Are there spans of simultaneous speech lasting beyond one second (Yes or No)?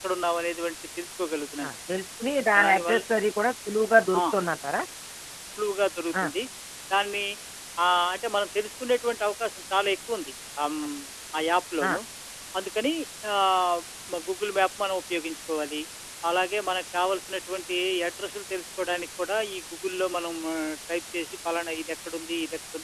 No